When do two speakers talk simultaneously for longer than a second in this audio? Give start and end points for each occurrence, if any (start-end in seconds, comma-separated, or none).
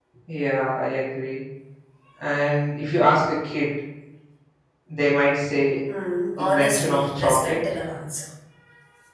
6.4-7.6